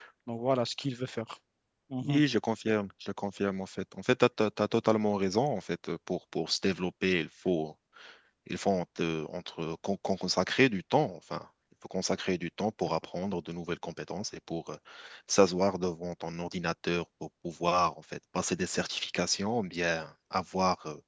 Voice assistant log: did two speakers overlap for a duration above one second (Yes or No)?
No